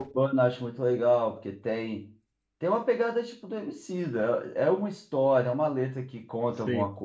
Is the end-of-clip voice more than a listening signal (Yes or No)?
No